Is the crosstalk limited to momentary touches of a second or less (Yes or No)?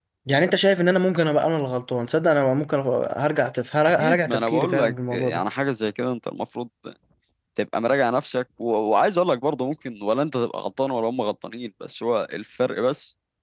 No